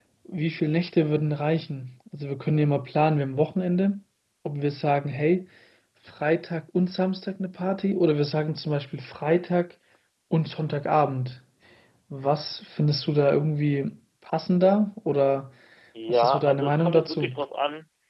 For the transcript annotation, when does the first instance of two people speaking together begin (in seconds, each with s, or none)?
16.1 s